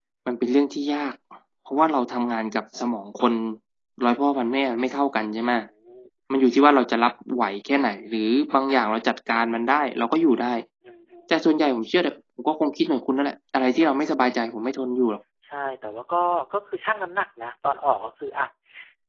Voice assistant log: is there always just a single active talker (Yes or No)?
Yes